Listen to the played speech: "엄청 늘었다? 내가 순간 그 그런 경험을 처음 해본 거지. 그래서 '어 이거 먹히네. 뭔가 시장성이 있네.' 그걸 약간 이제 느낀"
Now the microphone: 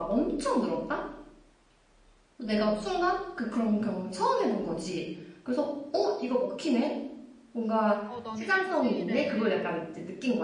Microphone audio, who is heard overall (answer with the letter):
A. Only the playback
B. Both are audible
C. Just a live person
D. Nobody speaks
B